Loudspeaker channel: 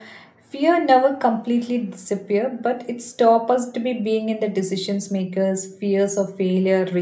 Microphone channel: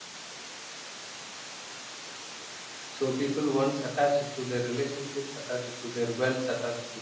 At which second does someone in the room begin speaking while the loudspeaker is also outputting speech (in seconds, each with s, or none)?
2.9 s